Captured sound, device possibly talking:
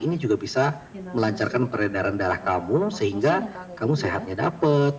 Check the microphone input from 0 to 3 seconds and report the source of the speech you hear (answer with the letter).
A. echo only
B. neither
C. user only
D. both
D